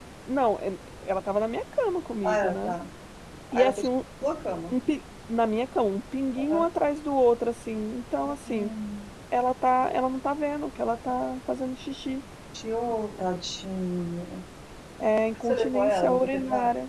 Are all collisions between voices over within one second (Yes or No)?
No